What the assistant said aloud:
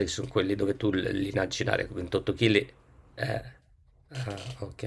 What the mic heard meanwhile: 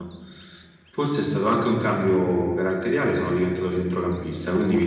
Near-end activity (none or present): present